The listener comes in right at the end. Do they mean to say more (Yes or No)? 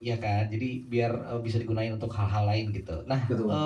No